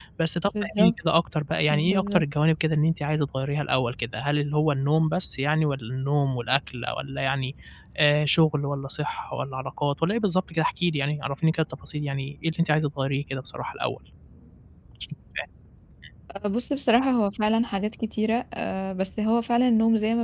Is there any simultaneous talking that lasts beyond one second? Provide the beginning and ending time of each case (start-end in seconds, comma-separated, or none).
none